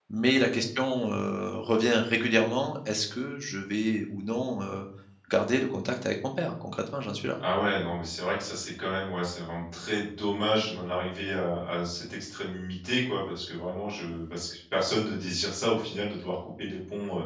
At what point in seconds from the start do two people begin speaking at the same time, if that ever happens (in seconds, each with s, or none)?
none